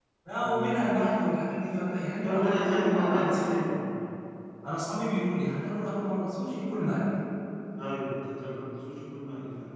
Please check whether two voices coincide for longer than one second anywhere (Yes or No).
Yes